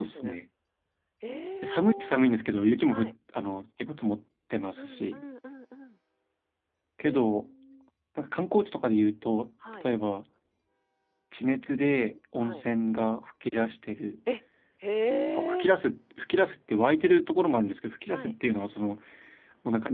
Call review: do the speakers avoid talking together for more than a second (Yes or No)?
Yes